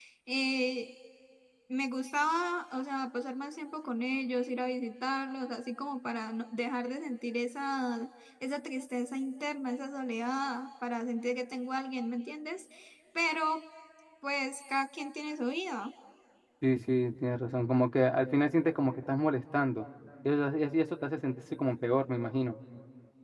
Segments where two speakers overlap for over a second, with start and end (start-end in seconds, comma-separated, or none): none